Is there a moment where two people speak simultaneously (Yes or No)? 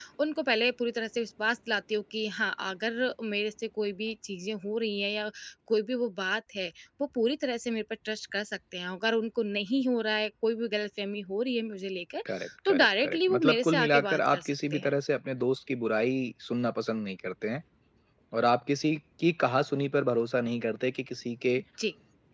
Yes